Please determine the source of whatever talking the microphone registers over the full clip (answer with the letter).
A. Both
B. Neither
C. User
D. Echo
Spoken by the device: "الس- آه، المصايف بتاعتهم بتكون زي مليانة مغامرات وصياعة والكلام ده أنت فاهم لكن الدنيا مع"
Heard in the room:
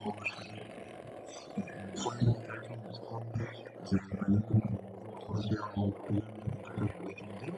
D